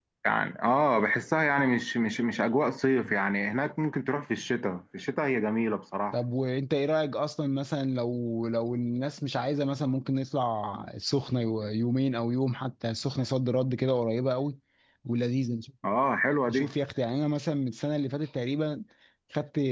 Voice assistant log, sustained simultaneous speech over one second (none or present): none